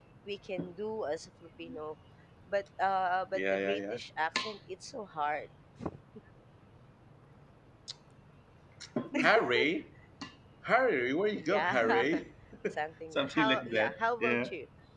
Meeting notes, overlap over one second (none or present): present